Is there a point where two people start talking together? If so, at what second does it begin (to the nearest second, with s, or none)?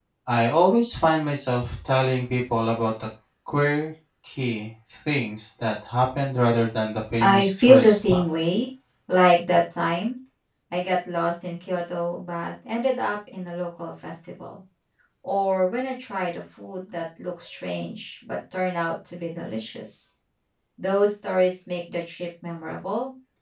7 s